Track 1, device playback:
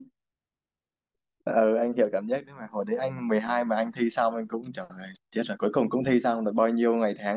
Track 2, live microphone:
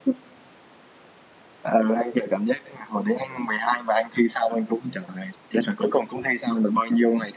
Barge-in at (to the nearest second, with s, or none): none